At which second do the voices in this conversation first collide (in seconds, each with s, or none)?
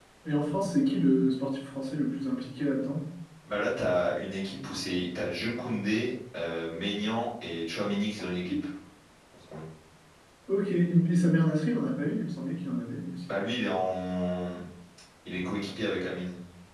none